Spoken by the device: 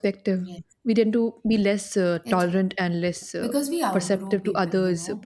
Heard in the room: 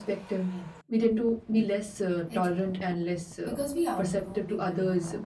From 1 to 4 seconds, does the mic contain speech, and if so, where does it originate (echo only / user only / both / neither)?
echo only